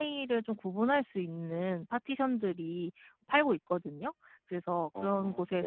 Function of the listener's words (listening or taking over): listening